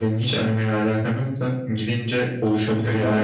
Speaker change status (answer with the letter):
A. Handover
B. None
A